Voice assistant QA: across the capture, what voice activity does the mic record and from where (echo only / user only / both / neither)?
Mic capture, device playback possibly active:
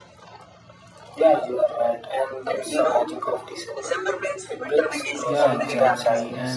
both